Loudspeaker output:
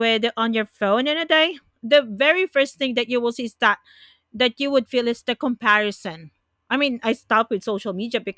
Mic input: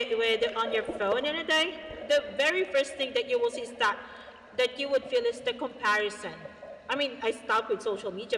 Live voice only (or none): none